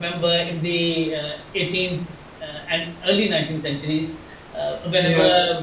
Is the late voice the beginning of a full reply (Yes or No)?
No